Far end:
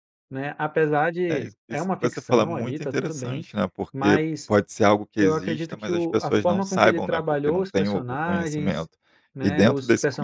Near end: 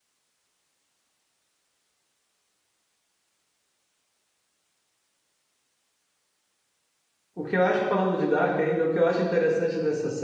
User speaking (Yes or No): Yes